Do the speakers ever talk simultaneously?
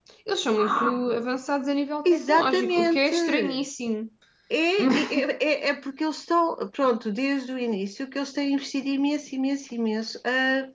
Yes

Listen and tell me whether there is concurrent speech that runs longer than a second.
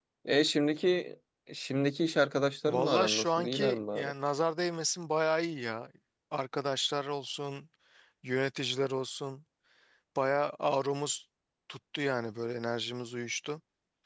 Yes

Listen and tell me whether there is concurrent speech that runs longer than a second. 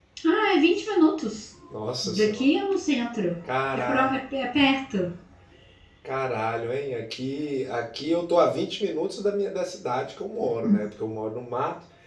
No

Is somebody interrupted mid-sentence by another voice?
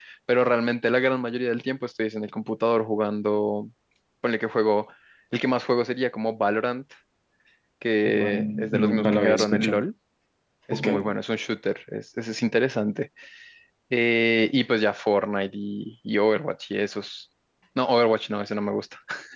Yes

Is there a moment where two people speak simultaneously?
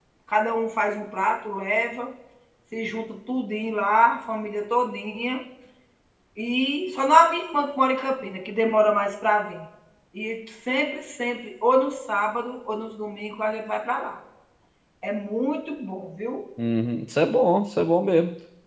No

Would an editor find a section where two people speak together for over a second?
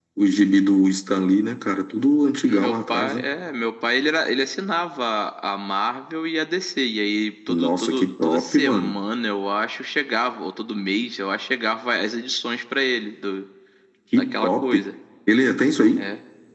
Yes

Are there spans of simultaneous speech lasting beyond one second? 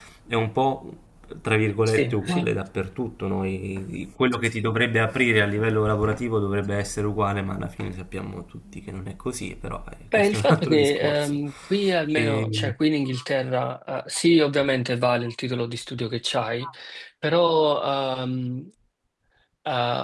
Yes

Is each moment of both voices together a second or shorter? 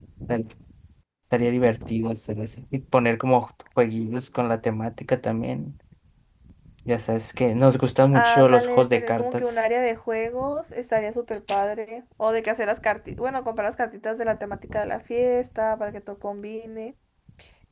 No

